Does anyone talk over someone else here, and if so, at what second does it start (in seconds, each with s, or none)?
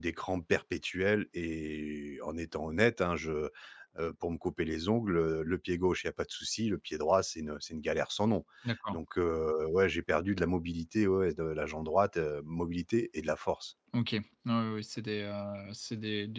none